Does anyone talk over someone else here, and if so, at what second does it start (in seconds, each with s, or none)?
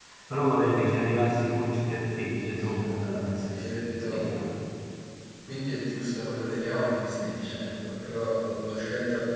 2.4 s